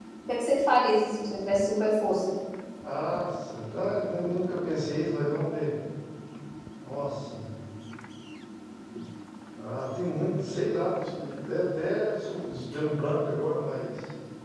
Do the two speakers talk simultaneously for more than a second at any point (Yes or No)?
No